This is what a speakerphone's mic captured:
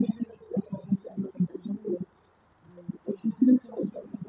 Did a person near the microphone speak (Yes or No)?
No